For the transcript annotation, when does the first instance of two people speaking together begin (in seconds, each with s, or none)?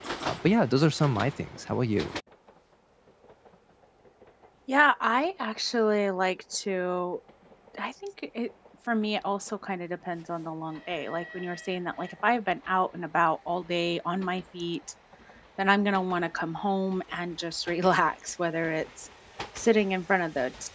none